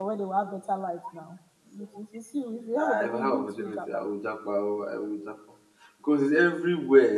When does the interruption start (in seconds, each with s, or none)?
2.8 s